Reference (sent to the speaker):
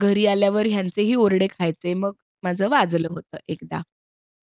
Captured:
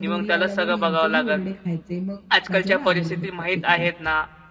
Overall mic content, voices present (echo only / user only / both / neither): both